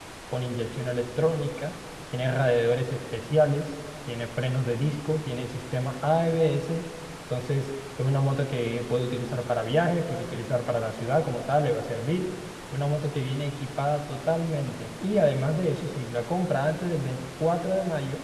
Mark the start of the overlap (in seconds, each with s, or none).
none